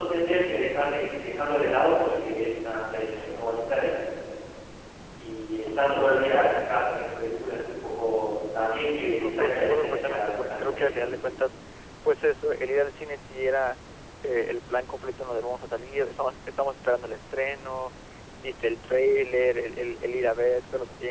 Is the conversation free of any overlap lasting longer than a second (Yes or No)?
No